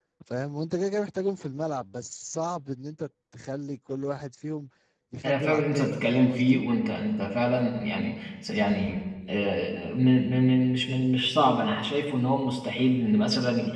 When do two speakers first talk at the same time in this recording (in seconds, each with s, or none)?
5.2 s